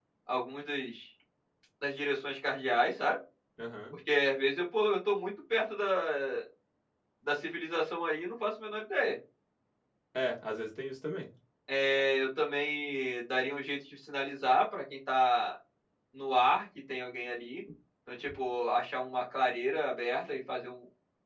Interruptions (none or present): none